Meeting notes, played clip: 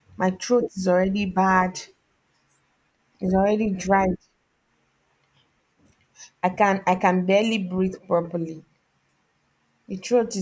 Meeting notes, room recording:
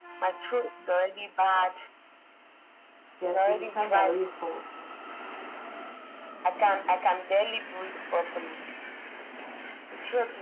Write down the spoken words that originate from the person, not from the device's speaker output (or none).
there, there's a time that rain falls